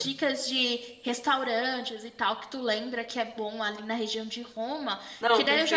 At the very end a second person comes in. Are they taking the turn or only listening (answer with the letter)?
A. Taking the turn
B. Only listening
B